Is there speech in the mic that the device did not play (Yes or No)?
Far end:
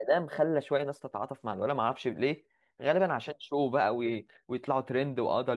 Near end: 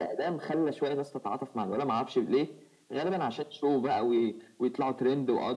No